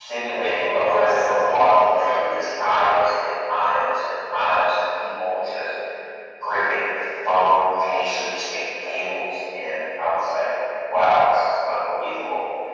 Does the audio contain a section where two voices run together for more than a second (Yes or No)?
Yes